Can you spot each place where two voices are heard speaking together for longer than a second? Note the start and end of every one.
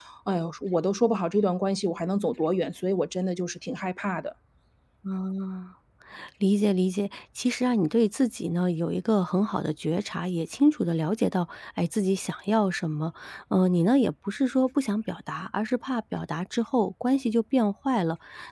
none

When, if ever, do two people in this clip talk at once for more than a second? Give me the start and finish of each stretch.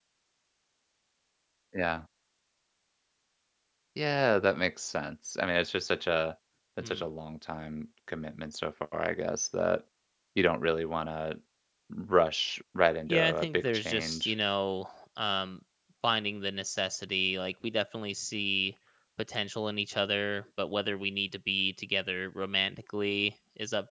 13.1-14.3

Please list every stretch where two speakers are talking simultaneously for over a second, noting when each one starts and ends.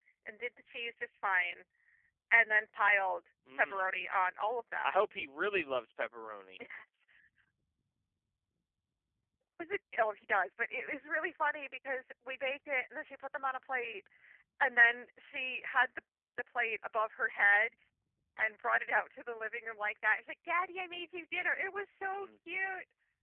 none

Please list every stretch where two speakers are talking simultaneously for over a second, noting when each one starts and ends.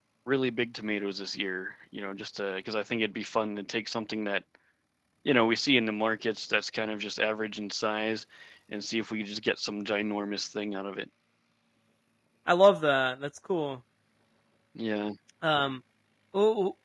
none

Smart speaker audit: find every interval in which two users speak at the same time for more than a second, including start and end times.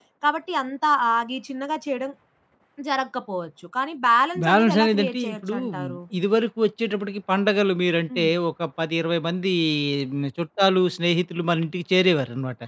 4.4-6.0

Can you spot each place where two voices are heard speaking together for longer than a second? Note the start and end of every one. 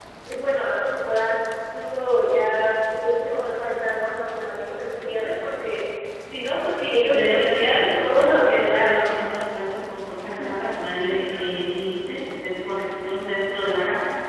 7.1-9.1

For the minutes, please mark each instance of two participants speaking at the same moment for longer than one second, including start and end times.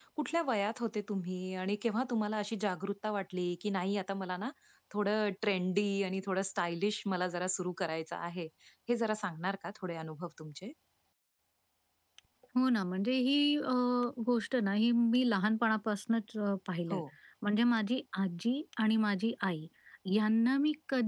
none

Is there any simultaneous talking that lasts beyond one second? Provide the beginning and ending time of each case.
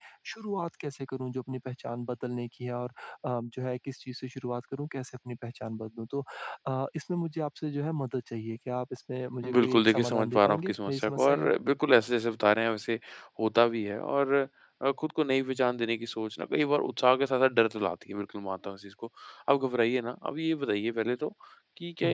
9.5-11.5

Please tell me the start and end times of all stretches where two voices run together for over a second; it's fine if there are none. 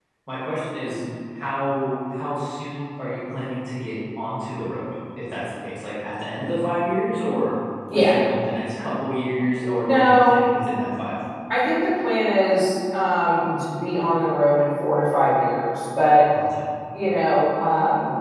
none

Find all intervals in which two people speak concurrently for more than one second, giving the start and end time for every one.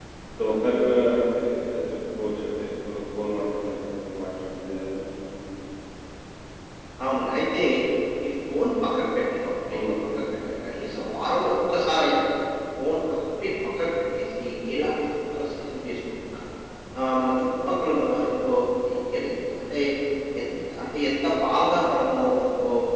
none

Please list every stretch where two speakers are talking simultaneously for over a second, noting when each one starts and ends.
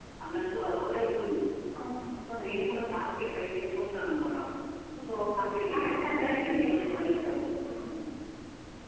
5.0-7.2

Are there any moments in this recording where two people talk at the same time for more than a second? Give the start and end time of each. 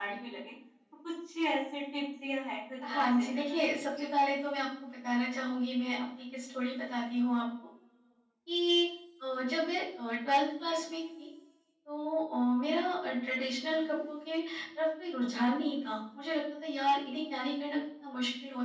2.8-4.1

